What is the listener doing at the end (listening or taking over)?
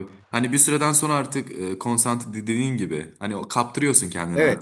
taking over